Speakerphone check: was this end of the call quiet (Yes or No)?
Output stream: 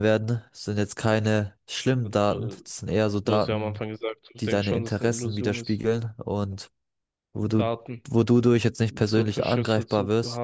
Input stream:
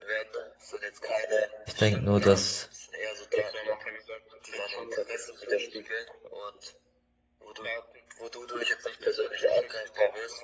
No